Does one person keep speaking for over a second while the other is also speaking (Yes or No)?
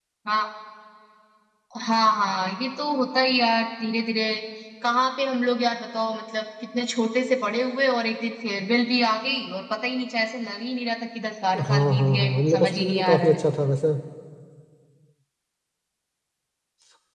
Yes